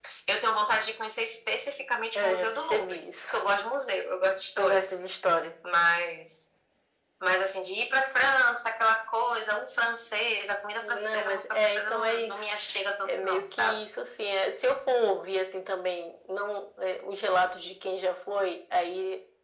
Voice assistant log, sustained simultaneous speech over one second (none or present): present